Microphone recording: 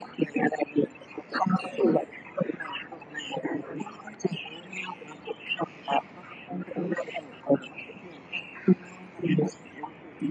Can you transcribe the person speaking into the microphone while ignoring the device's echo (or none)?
none